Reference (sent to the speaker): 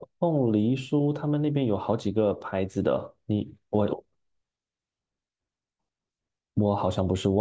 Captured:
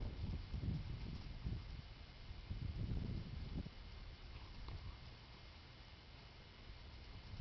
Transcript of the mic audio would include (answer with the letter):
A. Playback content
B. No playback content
B